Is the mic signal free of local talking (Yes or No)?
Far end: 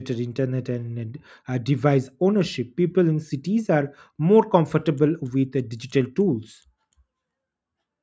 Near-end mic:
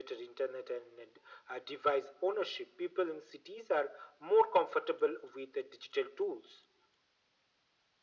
Yes